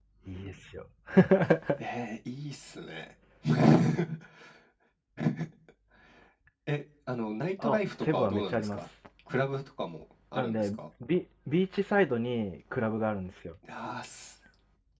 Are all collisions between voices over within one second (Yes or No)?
No